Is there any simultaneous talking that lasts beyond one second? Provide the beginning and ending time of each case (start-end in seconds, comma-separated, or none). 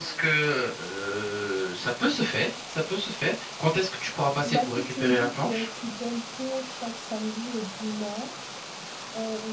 4.4-5.7